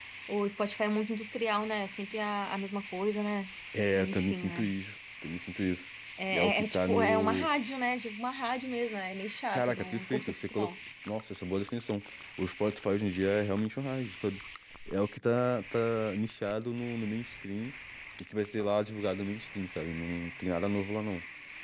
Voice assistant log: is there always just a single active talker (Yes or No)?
No